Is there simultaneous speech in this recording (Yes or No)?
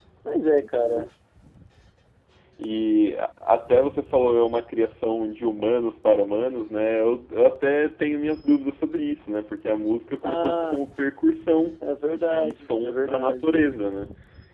Yes